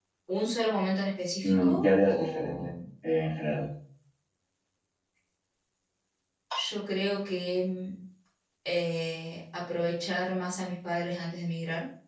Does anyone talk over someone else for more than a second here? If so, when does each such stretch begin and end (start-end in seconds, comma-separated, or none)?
1.4-2.7